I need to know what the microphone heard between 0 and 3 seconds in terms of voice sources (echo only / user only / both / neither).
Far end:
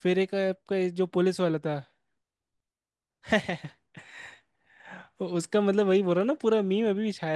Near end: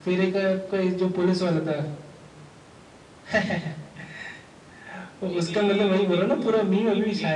echo only